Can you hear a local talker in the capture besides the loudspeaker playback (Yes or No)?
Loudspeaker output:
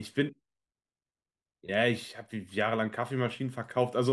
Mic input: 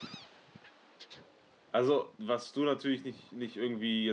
Yes